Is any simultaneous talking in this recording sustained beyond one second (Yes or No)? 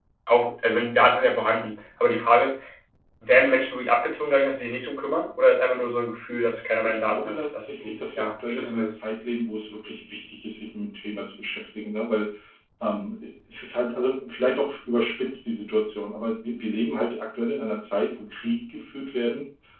Yes